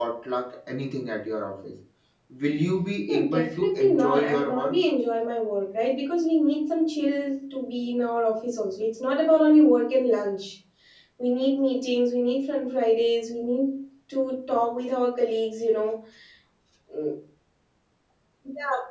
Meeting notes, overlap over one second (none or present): present